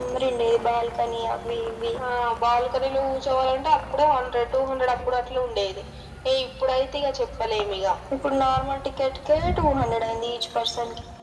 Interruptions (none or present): none